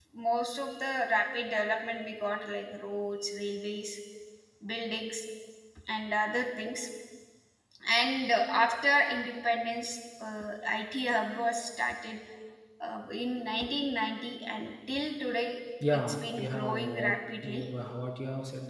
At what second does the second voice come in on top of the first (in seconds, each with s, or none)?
15.8 s